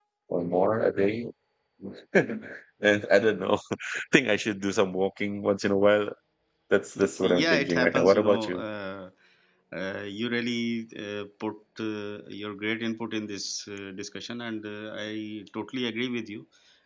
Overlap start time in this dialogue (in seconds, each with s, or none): 7.2 s